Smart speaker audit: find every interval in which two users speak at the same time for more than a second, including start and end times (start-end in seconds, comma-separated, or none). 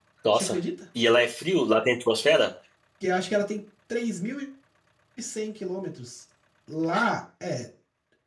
none